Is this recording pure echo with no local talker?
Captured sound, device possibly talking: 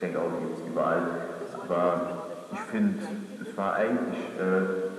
No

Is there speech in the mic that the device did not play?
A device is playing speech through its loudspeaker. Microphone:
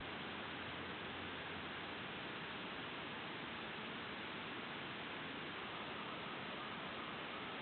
No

